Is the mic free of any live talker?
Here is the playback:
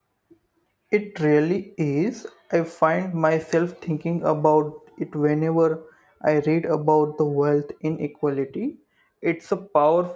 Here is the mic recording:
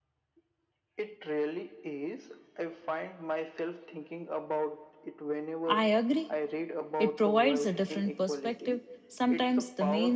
No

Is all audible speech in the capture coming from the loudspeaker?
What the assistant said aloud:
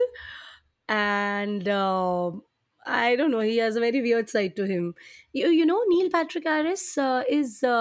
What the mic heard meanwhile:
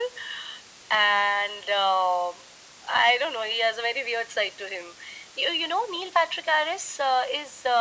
Yes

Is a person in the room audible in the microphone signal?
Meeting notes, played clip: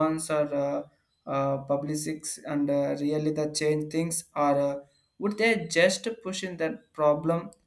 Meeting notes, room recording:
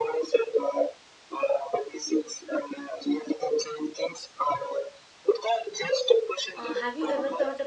Yes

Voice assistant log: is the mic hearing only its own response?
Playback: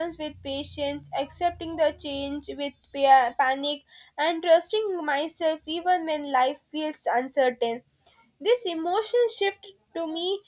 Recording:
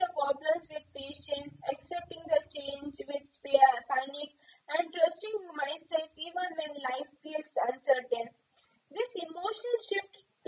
Yes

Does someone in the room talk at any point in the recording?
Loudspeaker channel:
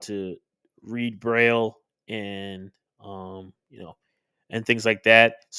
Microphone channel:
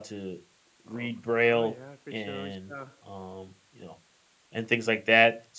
Yes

